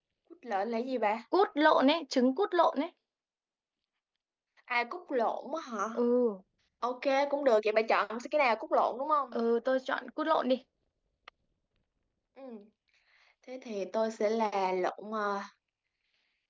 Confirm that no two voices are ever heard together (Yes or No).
Yes